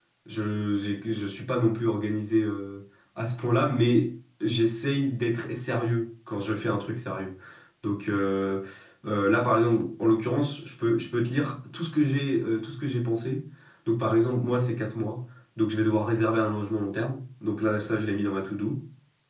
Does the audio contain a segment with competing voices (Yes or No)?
No